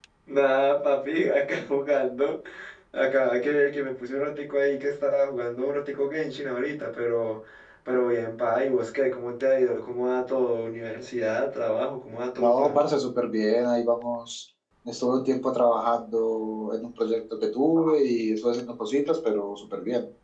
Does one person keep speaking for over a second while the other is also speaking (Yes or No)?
No